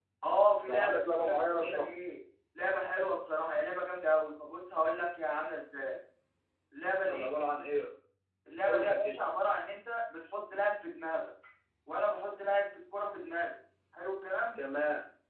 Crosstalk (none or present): present